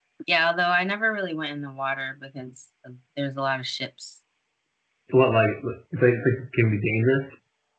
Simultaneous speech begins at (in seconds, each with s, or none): none